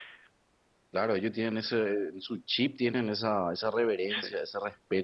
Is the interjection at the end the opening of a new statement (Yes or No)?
No